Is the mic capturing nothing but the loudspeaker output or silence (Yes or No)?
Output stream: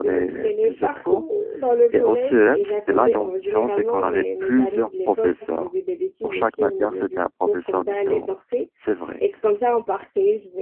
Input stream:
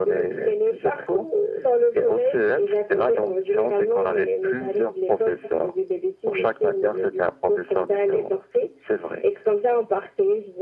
Yes